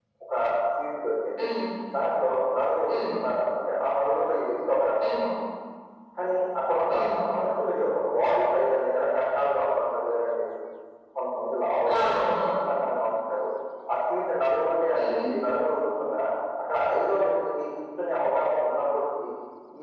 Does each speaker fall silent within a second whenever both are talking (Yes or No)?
Yes